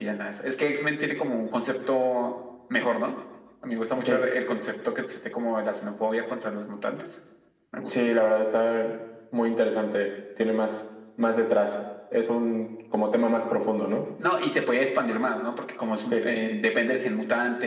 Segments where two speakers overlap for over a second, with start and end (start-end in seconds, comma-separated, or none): none